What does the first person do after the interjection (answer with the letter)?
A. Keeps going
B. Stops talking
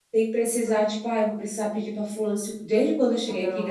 A